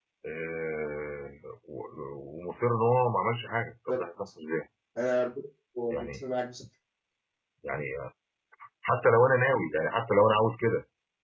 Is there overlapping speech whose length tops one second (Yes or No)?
No